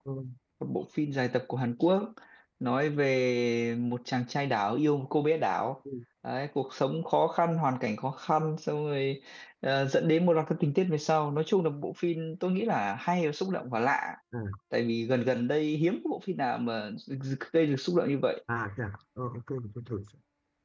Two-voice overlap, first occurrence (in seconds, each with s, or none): none